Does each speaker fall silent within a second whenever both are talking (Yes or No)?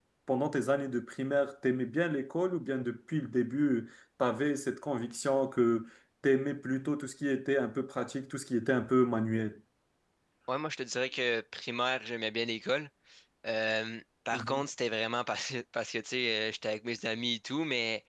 Yes